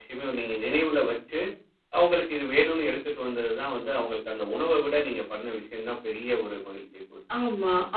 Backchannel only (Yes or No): No